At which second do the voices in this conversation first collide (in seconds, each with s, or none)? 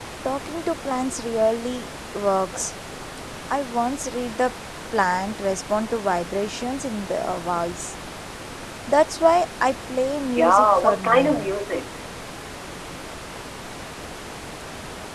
10.2 s